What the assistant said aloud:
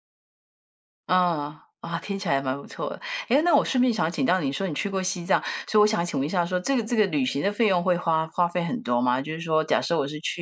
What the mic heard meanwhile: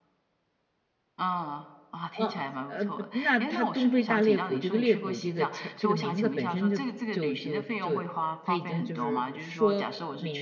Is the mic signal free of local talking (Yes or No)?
No